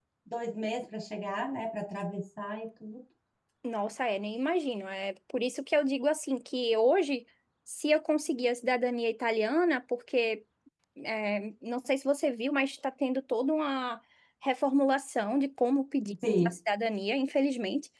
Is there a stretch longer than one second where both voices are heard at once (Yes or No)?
No